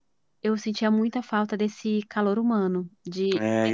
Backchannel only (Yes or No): No